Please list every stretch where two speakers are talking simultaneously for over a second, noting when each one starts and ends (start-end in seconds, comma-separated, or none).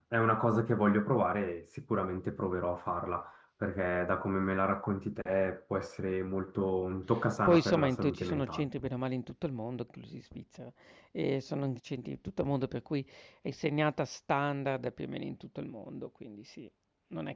7.5-8.7